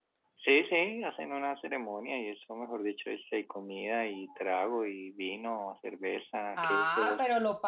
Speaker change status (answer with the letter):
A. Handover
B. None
A